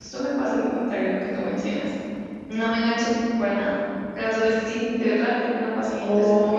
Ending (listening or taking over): taking over